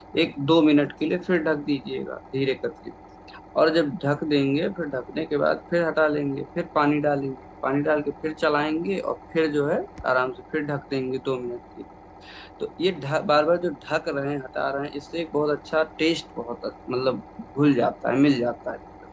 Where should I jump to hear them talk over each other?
none

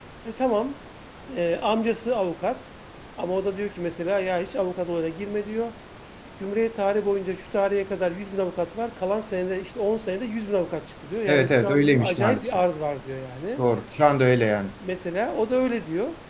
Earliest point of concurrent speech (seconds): 11.3 s

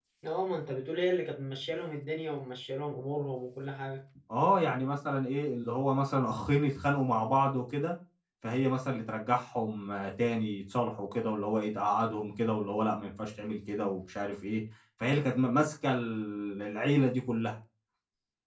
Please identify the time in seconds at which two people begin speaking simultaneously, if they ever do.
none

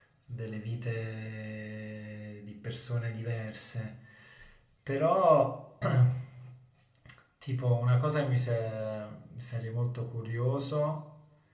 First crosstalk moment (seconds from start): none

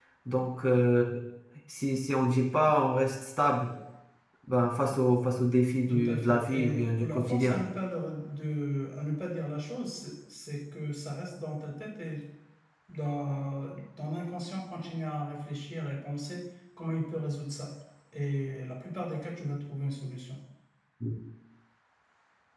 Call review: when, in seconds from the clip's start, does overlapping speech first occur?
5.9 s

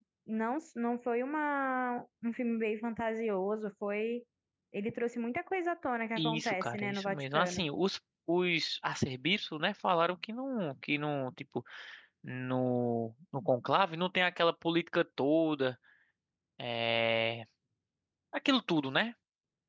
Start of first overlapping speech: 6.2 s

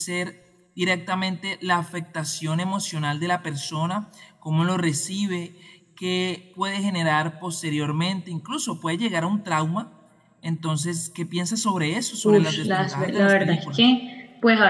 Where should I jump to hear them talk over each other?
12.2 s

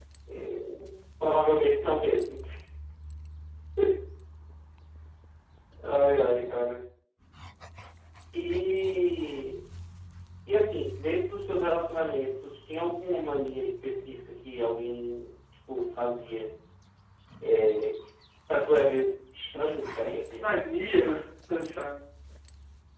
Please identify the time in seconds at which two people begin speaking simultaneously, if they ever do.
none

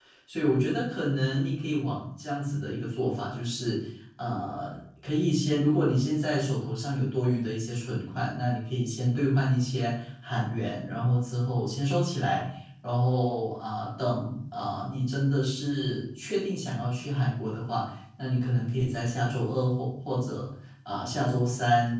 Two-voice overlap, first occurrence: none

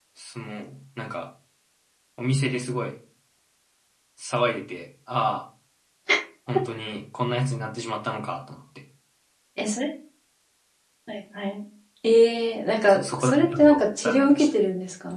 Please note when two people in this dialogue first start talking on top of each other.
12.9 s

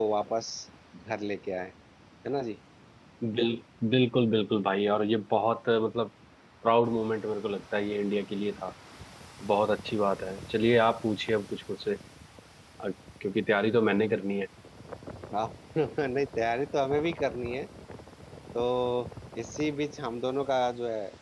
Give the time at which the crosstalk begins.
none

